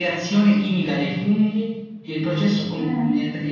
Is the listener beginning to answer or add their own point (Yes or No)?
No